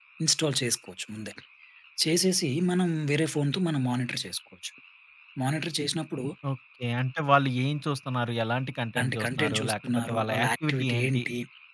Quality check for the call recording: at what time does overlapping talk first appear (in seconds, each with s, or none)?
9.0 s